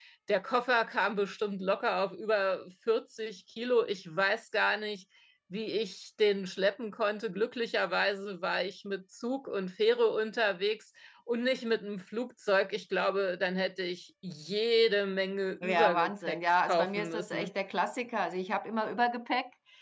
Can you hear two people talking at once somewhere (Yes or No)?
Yes